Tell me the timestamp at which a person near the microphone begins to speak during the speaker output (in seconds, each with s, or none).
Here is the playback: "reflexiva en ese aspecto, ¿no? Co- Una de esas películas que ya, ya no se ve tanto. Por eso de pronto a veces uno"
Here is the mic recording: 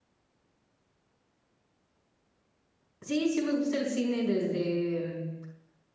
3.0 s